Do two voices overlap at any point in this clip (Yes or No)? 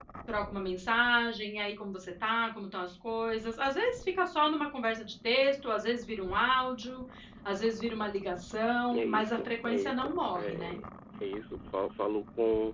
Yes